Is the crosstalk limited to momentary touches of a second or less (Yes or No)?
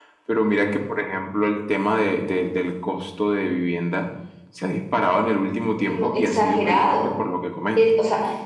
No